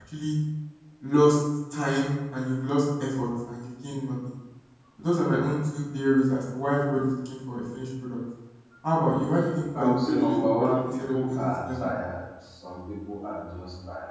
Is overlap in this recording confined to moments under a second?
No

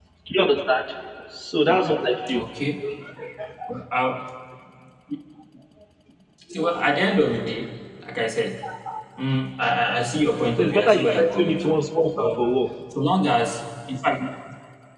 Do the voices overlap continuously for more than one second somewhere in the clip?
Yes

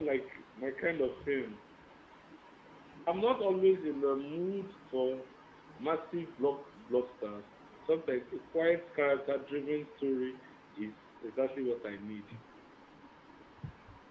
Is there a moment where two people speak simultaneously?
No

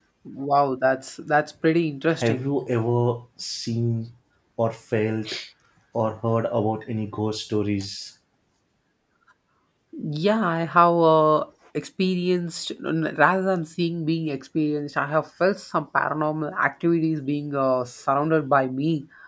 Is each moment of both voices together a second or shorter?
Yes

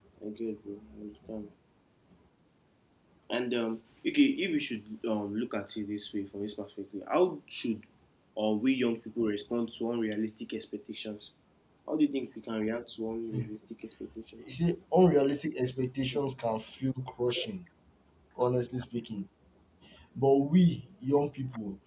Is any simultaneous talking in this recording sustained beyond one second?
No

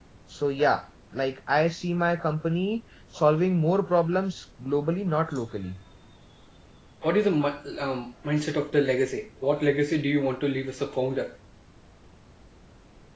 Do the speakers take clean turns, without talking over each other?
Yes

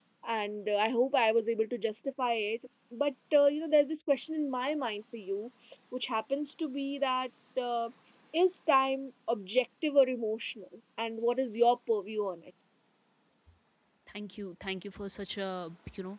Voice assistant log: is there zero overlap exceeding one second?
Yes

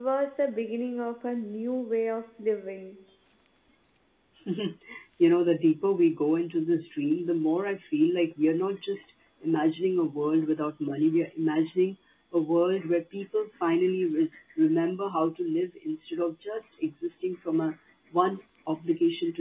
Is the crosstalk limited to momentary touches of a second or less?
Yes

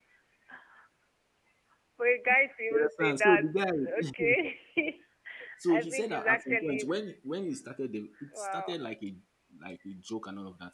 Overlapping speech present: Yes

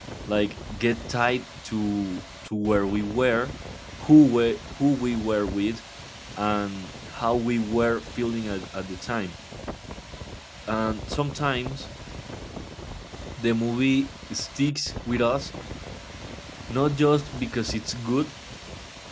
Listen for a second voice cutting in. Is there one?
No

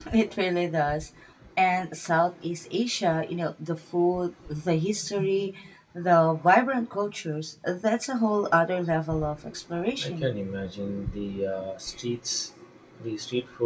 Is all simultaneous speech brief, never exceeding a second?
Yes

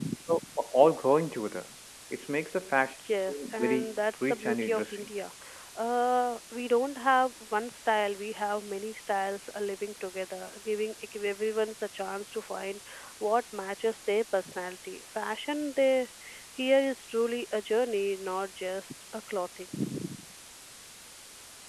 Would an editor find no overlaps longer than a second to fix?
No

